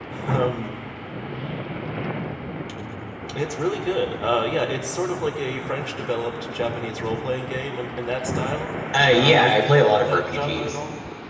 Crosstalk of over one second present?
Yes, from 9.2 s

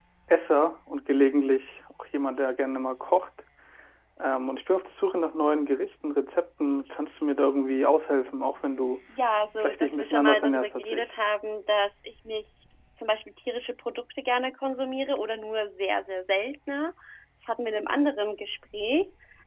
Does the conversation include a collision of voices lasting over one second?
Yes, from 9.6 s

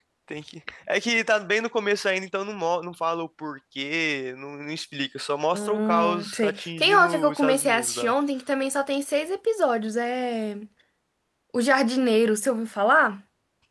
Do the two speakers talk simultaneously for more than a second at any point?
Yes, from 5.5 s

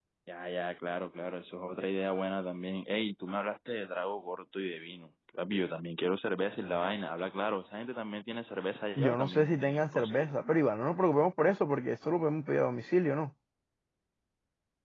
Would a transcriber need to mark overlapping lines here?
Yes, from 9.0 s

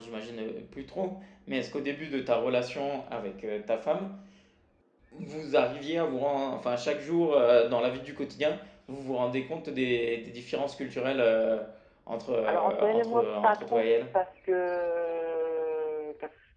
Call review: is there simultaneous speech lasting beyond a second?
Yes, from 12.5 s

